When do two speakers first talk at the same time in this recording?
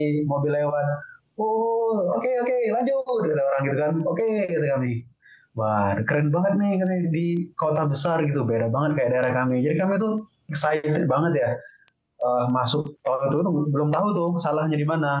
none

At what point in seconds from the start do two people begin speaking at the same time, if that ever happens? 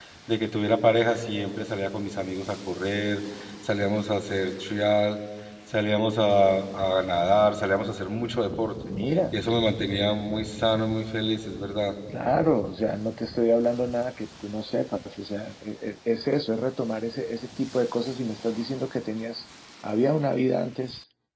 none

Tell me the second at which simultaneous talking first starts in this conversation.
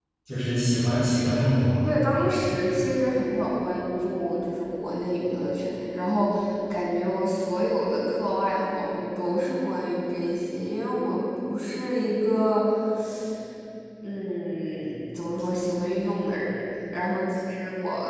none

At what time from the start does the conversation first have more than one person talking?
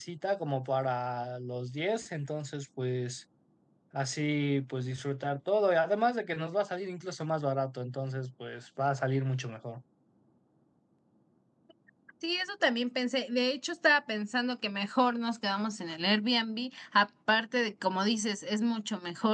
none

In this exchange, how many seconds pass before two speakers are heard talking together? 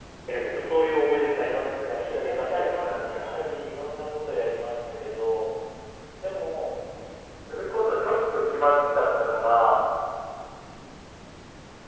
1.8 s

